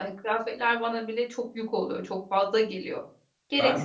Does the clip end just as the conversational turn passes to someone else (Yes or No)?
Yes